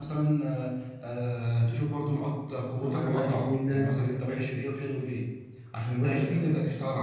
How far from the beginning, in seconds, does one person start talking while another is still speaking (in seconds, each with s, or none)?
2.8 s